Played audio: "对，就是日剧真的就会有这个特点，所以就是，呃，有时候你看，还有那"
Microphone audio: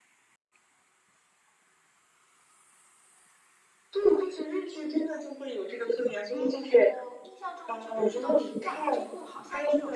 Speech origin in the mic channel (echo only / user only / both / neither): both